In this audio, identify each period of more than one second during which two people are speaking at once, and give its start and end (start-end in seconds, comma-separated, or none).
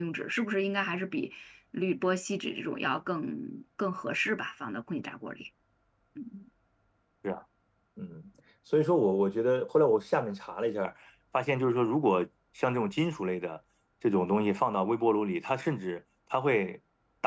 none